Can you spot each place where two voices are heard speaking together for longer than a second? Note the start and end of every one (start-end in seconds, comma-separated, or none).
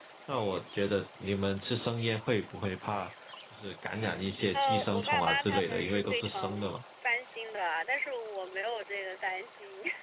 4.5-6.7